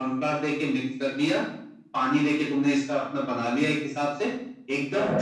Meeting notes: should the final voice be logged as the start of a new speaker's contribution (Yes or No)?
No